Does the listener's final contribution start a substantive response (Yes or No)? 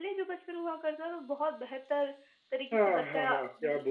Yes